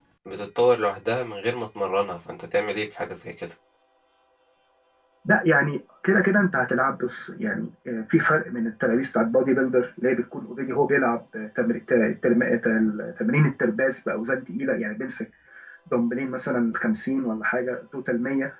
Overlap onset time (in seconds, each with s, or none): none